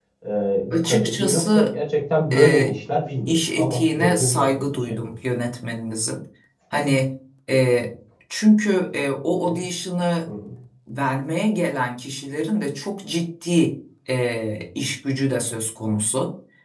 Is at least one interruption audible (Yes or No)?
Yes